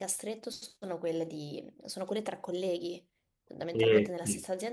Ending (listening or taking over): listening